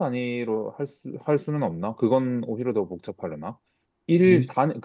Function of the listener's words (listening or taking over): listening